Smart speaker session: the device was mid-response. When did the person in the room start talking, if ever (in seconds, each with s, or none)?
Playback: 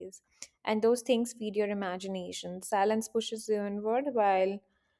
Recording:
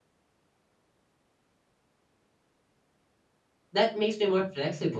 3.7 s